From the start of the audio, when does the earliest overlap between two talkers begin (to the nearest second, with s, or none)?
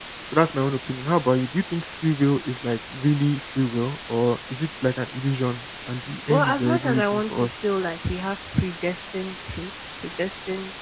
6 s